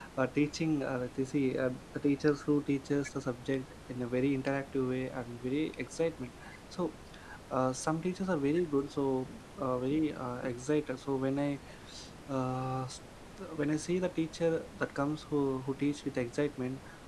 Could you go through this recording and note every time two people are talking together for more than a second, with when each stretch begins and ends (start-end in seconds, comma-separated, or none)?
none